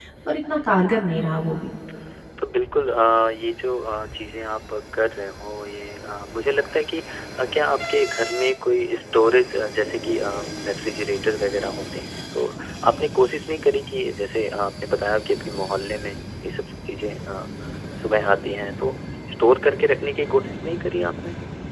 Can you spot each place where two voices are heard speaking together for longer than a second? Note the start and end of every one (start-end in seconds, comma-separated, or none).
none